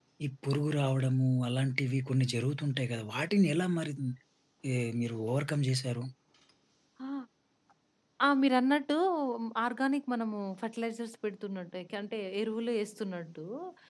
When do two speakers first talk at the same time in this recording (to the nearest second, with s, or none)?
none